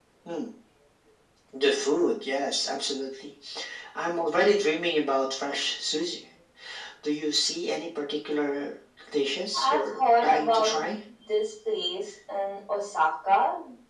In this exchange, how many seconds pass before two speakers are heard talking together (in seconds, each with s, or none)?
9.5 s